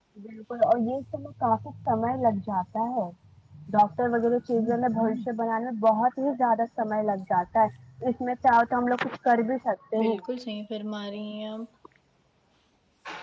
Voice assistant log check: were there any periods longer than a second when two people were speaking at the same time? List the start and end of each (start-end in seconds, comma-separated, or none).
none